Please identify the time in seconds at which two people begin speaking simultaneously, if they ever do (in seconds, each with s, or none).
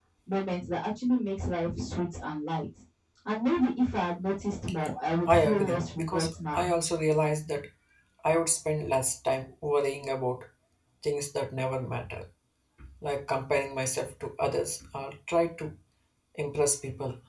5.2 s